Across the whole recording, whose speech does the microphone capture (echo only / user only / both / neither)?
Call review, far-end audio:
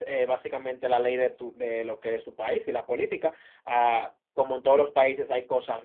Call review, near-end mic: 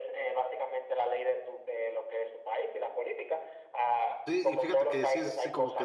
both